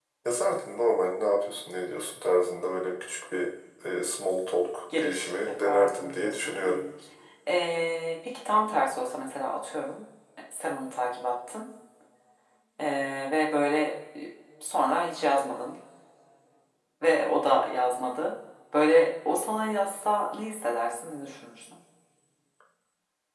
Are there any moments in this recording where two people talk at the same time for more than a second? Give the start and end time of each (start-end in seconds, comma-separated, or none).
5.0-6.8